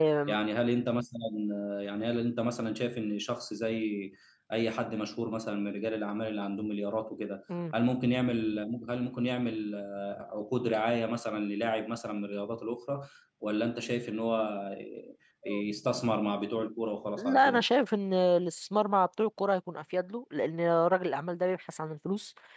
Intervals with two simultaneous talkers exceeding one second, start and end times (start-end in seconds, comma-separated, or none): none